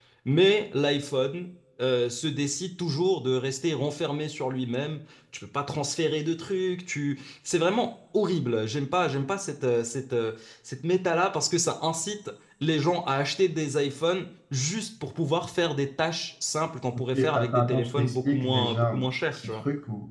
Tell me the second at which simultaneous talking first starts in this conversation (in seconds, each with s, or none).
16.9 s